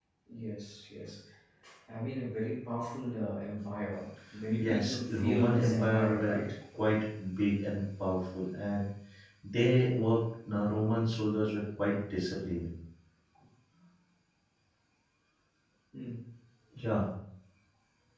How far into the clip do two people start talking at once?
5 s

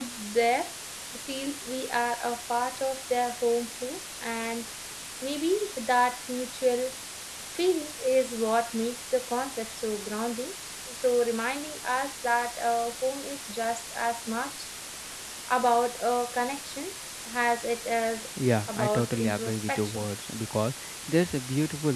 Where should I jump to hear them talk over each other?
19 s

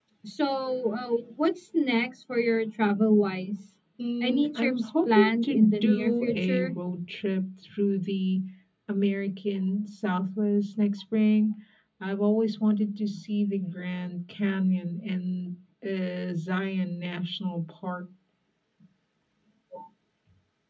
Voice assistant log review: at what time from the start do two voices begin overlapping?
4 s

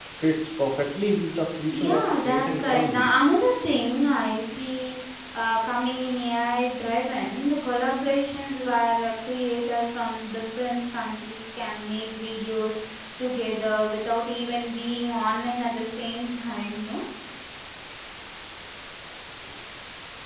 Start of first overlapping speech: 2 s

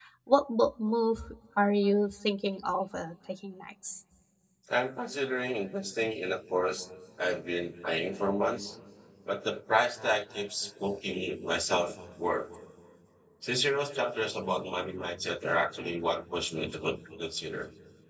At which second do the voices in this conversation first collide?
none

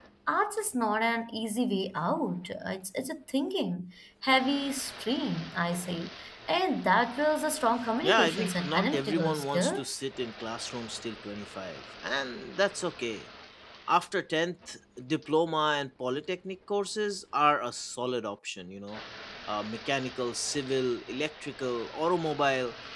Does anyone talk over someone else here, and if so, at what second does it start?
8 s

